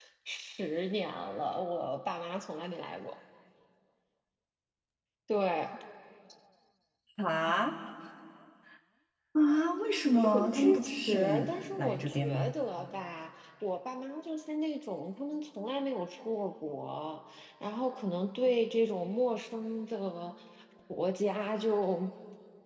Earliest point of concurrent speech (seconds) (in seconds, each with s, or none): 10.2 s